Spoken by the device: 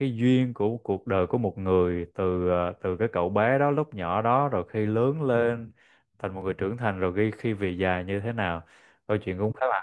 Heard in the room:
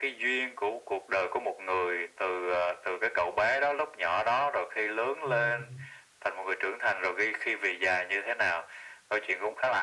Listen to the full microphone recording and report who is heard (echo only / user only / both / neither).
both